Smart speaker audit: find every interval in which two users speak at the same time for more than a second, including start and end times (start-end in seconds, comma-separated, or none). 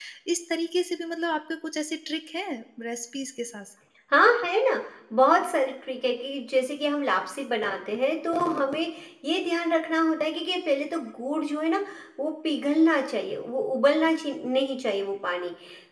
none